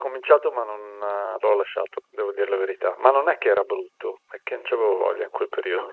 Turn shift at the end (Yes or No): Yes